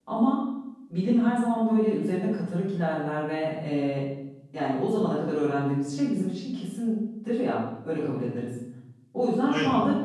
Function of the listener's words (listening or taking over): listening